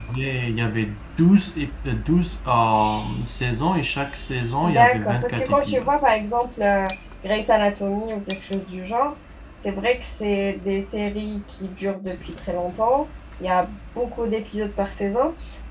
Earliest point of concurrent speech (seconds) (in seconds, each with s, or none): 4.6 s